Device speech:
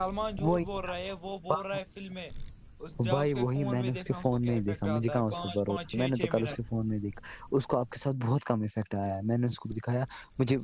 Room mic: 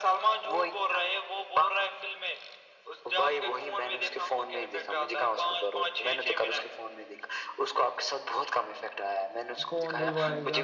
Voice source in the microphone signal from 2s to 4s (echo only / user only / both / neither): echo only